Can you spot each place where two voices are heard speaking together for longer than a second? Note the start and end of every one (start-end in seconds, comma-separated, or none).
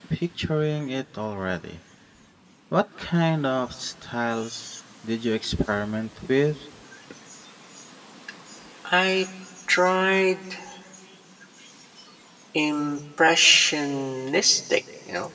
none